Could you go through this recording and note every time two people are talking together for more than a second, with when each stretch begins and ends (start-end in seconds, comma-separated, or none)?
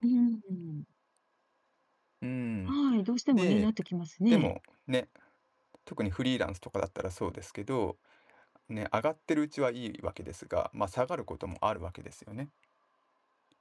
none